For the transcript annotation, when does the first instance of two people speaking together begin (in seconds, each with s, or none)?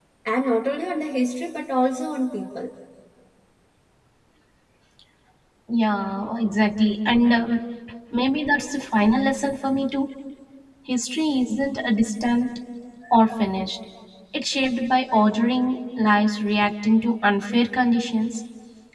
none